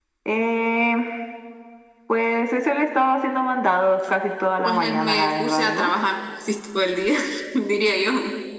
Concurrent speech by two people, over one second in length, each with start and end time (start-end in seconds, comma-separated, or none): 4.6-5.9